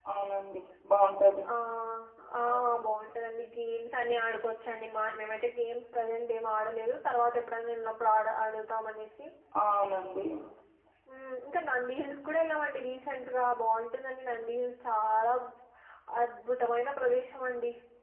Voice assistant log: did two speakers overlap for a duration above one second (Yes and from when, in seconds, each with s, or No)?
No